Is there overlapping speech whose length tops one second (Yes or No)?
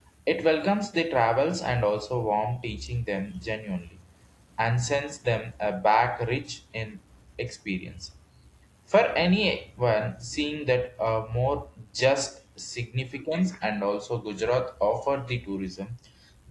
No